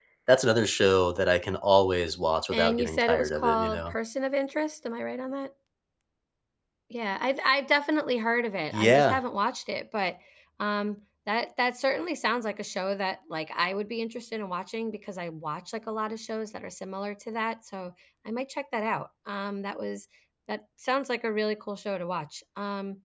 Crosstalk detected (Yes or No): Yes